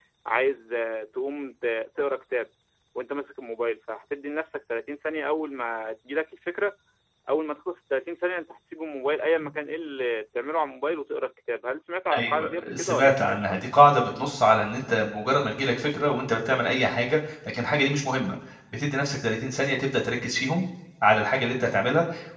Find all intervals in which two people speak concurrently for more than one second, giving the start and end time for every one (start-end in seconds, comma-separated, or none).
12.1-13.6